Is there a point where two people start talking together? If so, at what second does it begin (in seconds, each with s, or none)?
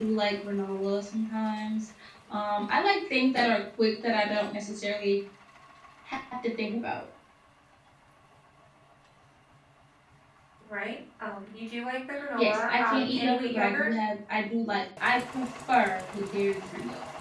12.4 s